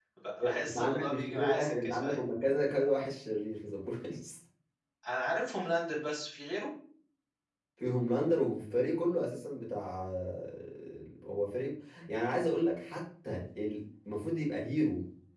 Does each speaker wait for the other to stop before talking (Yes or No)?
No